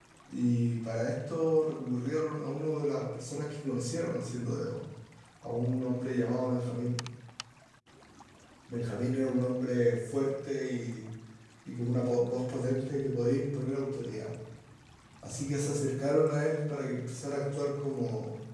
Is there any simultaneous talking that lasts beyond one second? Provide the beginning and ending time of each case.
none

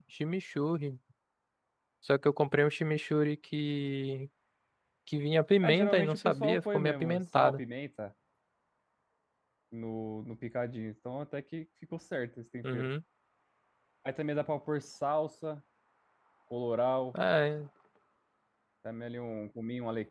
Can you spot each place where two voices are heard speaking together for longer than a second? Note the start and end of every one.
5.6-7.6

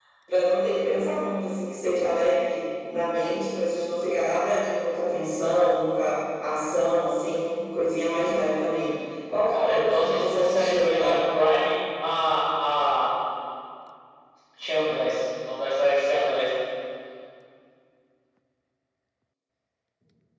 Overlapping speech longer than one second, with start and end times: 9.5-11.2

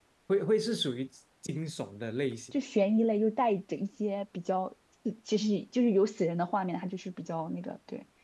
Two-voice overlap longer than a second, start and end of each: none

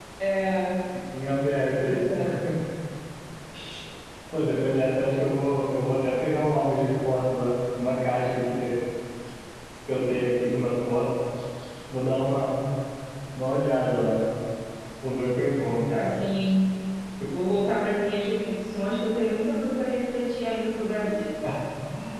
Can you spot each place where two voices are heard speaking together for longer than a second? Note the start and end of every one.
none

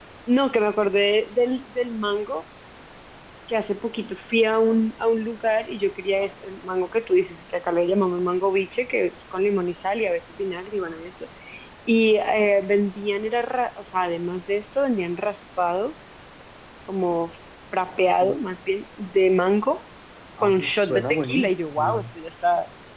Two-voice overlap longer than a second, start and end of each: 20.4-22.0

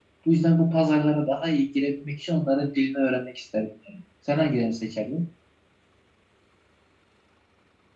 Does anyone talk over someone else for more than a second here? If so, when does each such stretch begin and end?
none

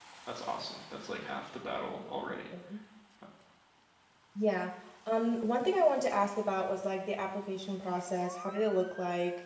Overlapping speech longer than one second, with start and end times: none

